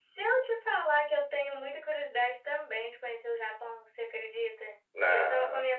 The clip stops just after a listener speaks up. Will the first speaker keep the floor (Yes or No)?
Yes